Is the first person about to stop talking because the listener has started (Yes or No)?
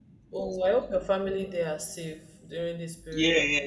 Yes